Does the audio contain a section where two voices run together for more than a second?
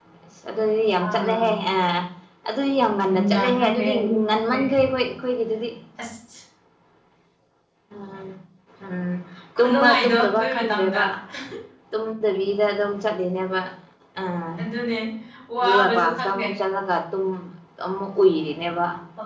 Yes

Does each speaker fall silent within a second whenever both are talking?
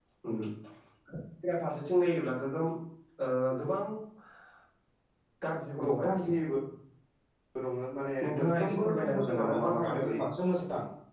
No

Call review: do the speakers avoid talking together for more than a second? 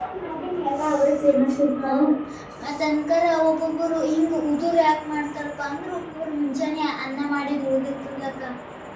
Yes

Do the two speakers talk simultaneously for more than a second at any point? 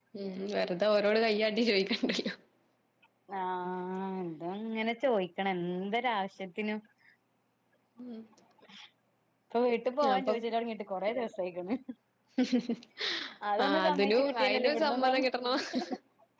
Yes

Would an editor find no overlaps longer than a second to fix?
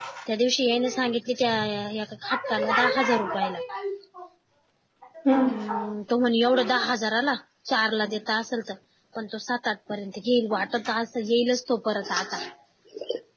No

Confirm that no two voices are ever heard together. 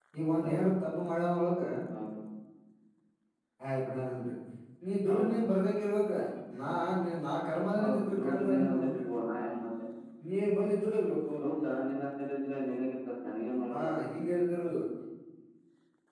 No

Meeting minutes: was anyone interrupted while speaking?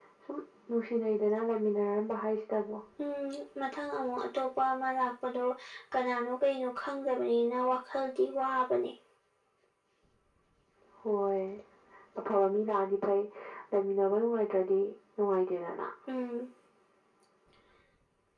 No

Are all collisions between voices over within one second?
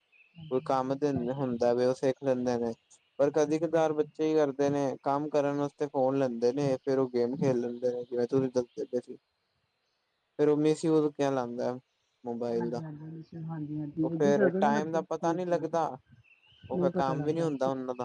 No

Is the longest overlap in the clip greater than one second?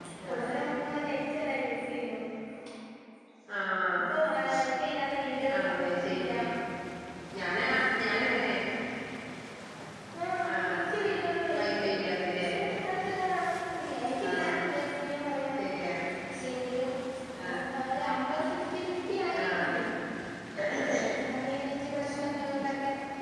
No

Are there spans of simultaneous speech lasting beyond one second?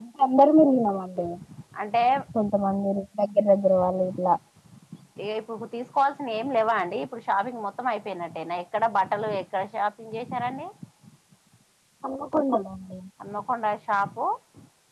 No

